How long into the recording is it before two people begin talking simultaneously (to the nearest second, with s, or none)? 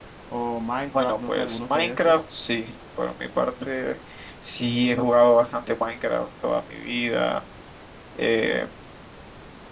1 s